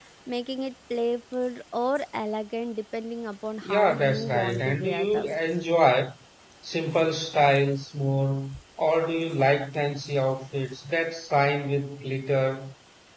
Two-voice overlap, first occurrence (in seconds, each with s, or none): 3.6 s